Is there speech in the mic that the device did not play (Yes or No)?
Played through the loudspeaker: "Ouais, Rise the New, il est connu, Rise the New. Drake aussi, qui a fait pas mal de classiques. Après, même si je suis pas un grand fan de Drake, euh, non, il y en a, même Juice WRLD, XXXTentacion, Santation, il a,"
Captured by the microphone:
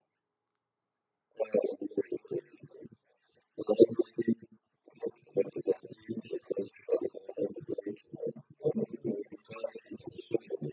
No